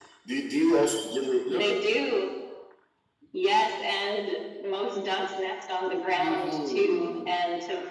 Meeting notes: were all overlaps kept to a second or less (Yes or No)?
No